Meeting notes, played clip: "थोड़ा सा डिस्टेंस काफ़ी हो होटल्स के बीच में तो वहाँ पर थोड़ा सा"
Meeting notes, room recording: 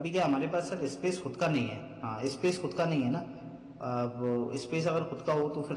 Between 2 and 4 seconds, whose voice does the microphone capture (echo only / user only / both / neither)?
user only